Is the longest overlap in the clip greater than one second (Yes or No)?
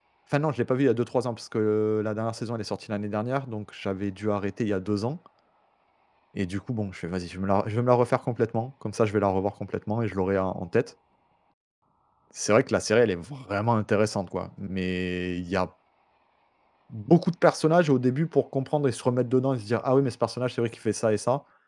No